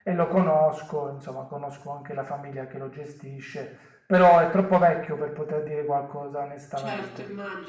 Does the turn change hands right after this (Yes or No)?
Yes